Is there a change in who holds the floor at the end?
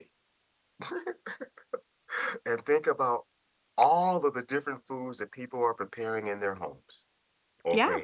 No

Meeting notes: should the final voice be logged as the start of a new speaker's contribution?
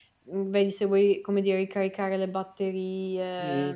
Yes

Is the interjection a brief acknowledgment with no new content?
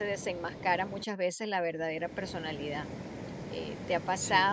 Yes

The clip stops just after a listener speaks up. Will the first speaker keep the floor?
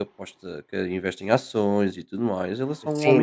No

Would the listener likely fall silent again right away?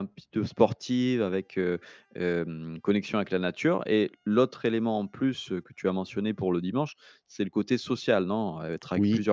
No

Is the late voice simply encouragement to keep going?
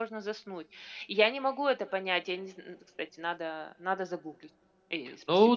No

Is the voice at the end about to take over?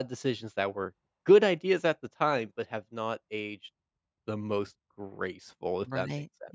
Yes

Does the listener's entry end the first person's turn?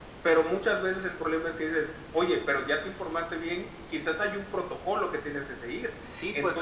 Yes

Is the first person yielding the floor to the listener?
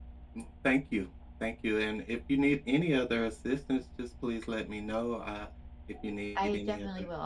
Yes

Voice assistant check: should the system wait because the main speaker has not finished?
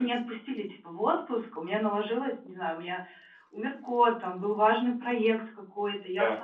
Yes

